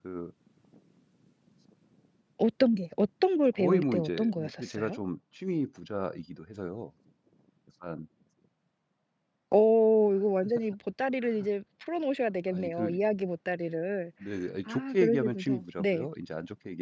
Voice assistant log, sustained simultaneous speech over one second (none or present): present